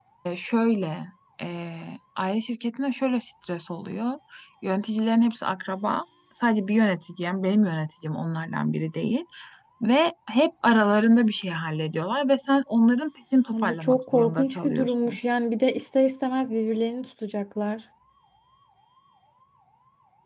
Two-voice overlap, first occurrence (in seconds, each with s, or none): 13.5 s